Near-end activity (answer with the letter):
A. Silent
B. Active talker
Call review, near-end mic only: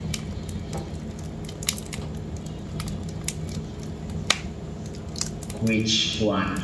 B